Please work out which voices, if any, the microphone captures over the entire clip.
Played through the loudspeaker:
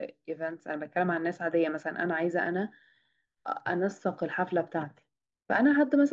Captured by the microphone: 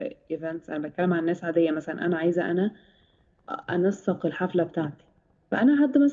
echo only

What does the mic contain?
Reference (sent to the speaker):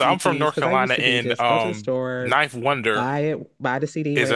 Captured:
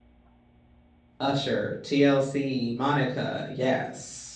user only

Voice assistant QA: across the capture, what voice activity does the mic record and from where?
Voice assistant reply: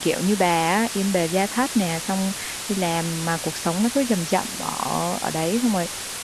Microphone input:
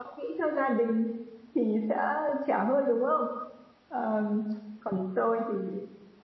user only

